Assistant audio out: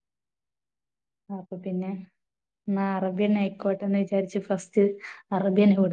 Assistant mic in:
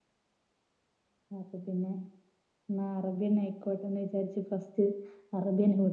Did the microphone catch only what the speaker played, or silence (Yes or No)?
Yes